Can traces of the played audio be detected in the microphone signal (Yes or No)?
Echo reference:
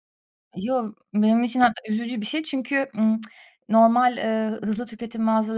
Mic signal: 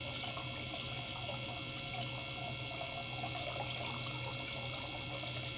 No